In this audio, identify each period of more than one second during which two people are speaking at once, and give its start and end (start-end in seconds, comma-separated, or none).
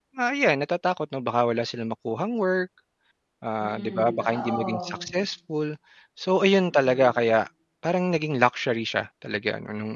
3.6-5.0